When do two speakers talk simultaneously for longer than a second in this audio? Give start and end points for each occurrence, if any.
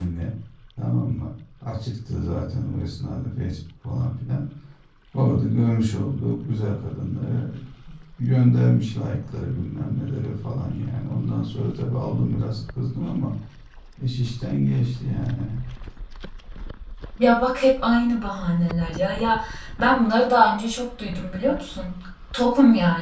none

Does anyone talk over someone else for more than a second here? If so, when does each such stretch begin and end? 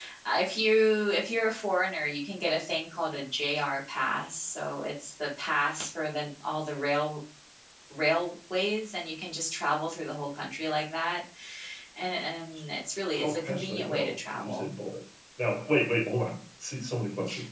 13.1-14.7

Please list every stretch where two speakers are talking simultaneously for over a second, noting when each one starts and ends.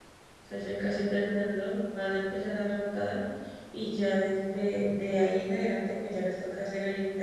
none

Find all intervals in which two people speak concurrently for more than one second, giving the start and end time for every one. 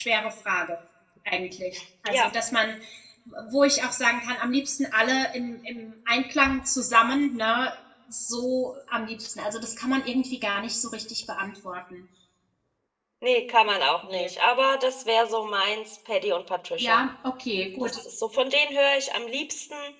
none

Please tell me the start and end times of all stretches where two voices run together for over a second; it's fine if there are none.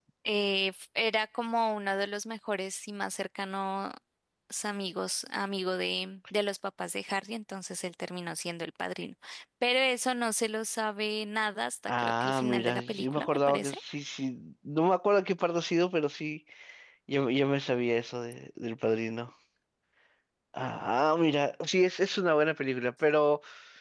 11.9-13.8

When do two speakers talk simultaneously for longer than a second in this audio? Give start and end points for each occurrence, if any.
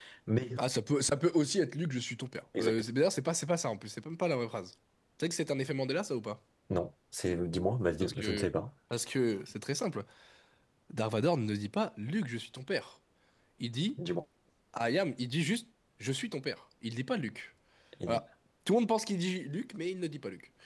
none

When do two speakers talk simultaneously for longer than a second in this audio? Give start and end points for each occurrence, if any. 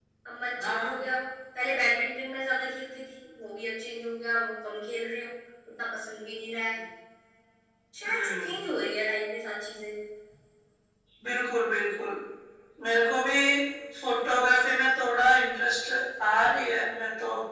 none

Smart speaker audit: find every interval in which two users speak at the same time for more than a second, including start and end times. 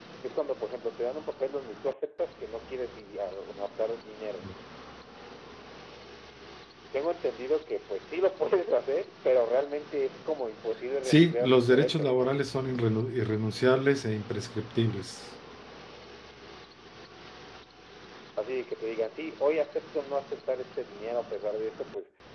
11.1-12.3

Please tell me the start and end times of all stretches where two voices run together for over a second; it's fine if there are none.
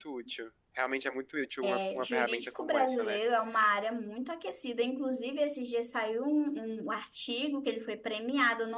1.6-3.2

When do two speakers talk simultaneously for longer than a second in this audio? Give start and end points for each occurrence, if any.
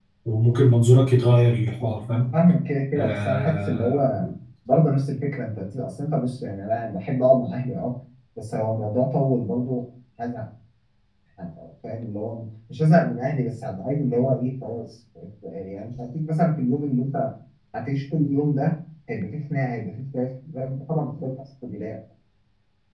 3.0-4.2

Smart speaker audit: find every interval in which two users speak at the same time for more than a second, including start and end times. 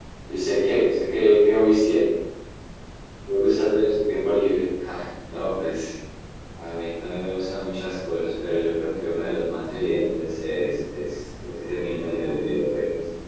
none

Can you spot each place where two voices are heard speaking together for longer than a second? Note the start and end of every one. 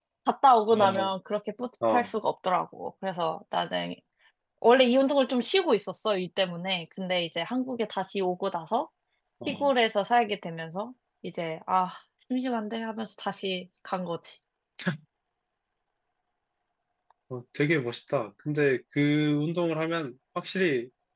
none

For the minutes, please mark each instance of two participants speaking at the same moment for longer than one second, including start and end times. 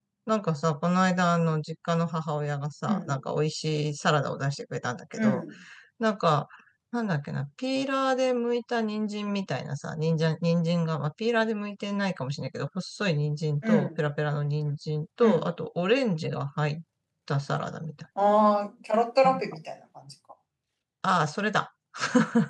none

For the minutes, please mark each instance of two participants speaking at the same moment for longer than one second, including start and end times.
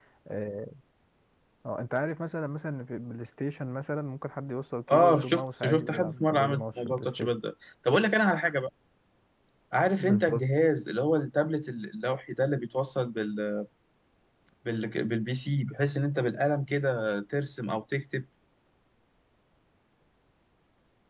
4.9-7.3

